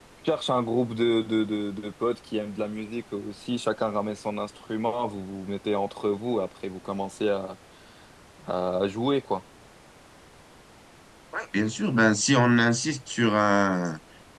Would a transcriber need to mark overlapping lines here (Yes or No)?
No